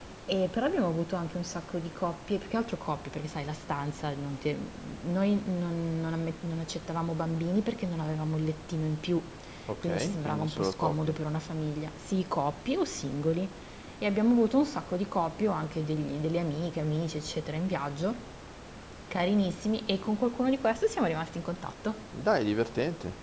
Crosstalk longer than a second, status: present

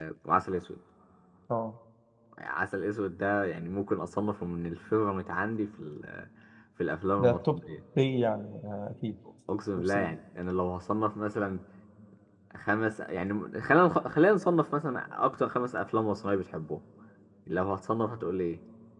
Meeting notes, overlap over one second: none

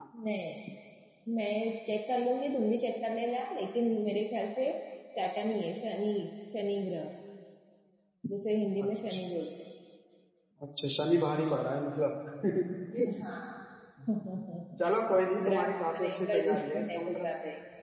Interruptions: present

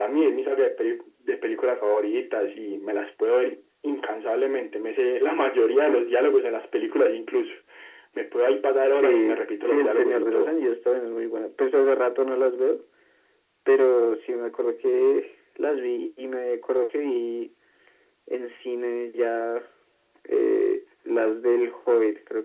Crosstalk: present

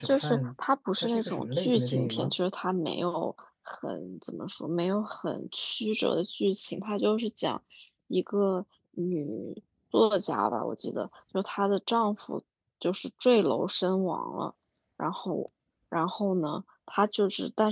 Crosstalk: present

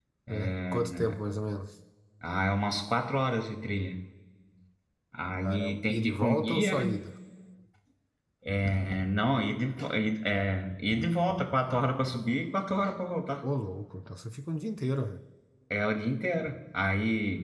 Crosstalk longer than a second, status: present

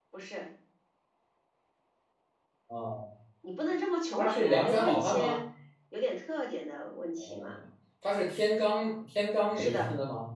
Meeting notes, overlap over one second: present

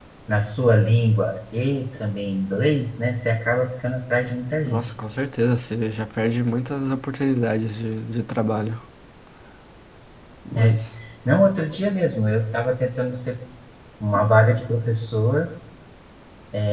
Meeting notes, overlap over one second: none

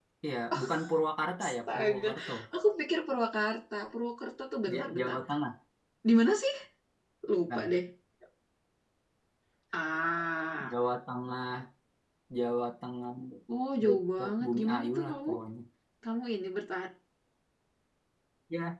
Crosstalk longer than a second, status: present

